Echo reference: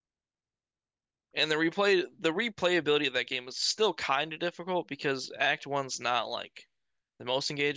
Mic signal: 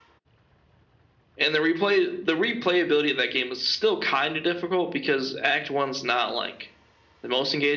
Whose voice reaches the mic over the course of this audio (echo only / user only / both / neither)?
echo only